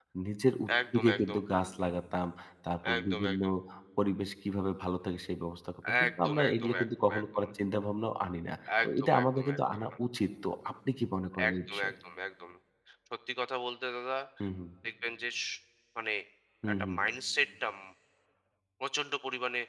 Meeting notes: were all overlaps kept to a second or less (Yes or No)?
No